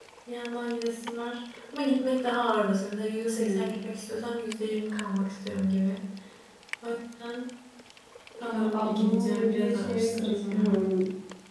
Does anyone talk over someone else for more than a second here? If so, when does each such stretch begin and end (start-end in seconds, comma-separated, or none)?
8.5-10.8